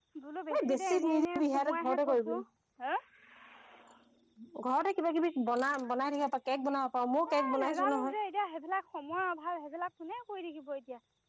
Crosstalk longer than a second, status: present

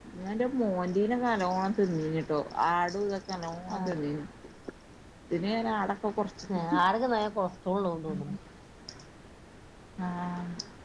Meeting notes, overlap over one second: none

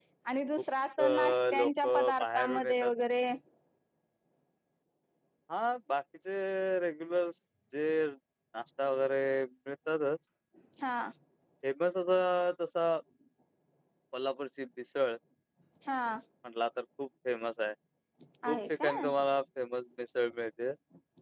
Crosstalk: present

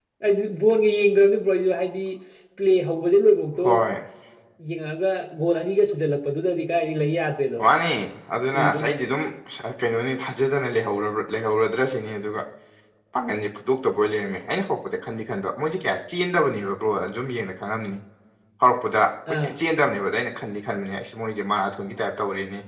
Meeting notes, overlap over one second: none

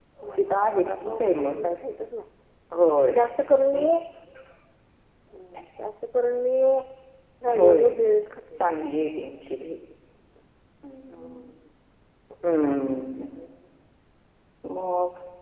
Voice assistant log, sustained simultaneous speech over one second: present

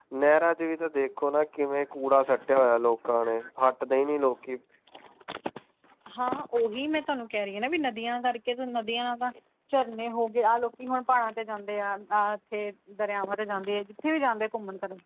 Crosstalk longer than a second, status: none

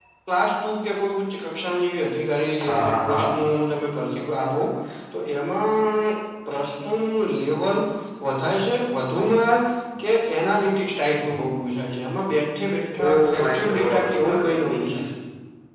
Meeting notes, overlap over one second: present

